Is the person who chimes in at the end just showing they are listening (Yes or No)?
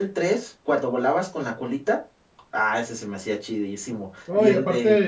No